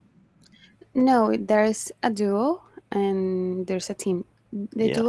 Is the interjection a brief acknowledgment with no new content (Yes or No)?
Yes